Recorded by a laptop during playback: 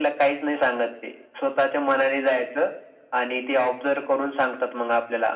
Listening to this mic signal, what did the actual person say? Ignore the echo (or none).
none